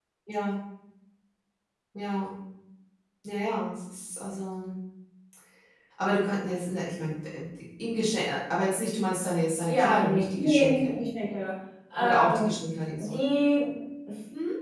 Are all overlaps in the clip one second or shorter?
No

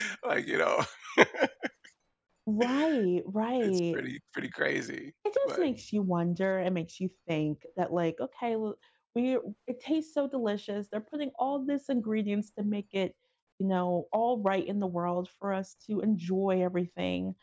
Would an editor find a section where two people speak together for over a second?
No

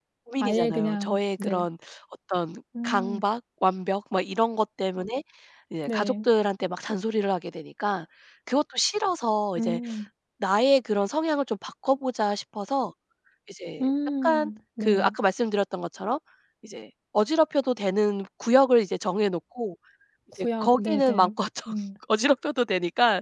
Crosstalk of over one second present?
Yes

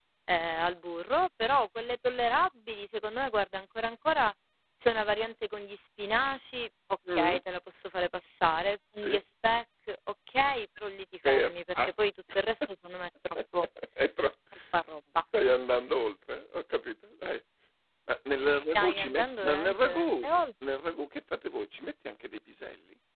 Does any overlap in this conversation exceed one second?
Yes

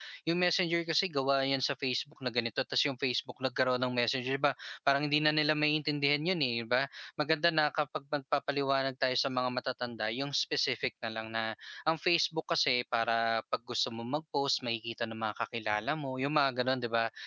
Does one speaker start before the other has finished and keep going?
No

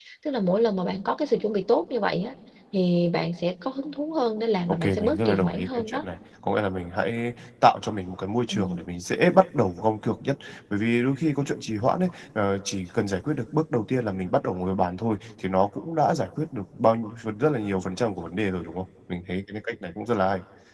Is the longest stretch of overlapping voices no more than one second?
No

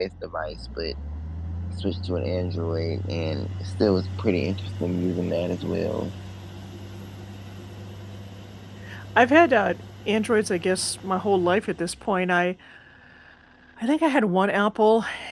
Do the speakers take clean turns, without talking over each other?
Yes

